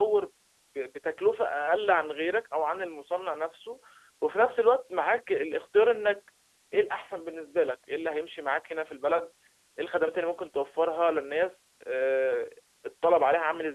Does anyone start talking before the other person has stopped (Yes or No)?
No